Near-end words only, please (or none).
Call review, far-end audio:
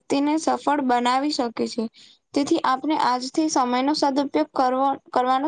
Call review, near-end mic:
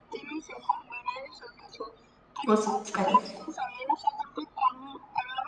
કોશિશ કરીશ